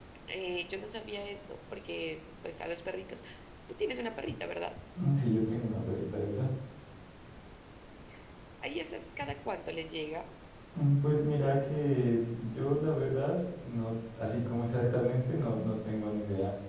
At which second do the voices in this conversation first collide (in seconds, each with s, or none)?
none